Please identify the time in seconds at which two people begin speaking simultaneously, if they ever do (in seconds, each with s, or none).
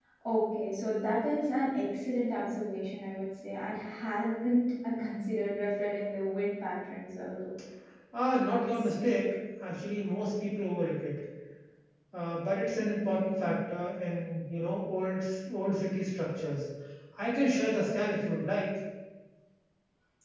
none